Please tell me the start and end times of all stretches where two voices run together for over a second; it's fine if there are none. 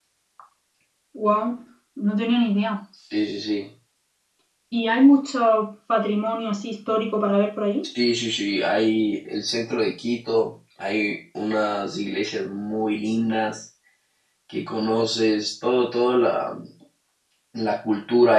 none

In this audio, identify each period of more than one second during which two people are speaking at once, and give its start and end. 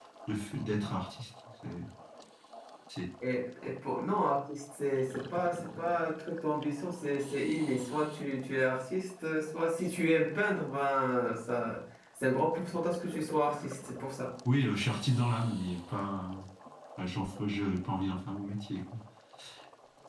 none

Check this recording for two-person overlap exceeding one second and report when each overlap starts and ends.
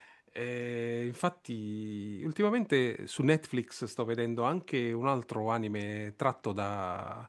none

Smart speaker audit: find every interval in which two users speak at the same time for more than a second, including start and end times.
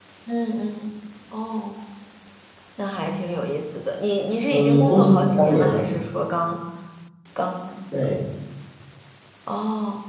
4.5-5.8

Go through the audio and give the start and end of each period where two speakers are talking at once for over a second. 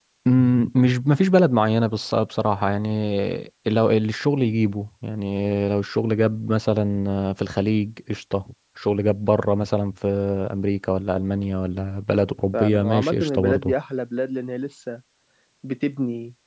12.5-13.7

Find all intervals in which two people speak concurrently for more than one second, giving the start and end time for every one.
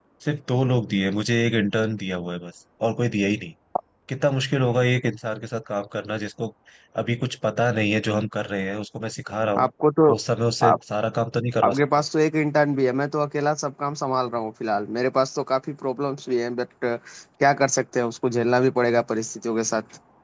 none

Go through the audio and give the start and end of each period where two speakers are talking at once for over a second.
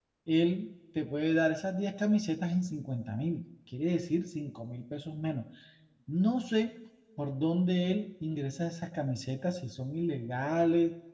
none

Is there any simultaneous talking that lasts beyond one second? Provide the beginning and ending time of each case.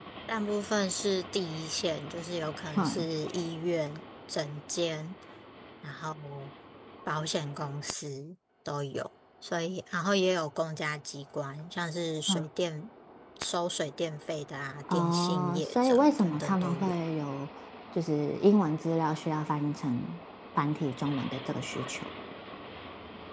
14.9-16.9

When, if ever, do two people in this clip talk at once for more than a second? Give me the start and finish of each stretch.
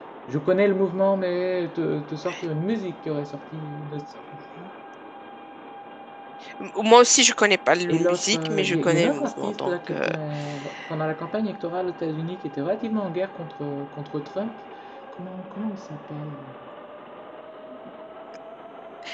7.9-10.1

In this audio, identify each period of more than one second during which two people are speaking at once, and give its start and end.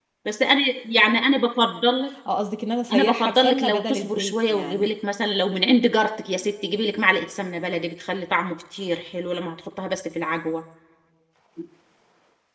2.9-4.9

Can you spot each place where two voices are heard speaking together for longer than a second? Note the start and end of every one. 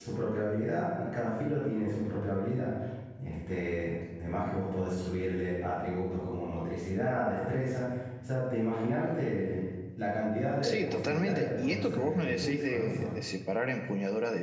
10.6-13.1

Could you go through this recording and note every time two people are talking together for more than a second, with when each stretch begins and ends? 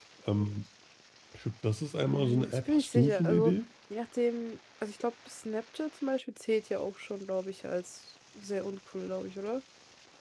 2.0-3.5

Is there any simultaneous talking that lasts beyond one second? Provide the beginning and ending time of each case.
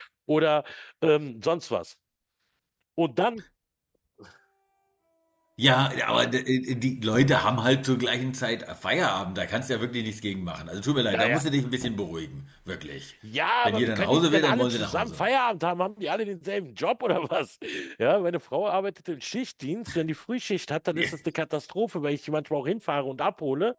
13.7-15.2

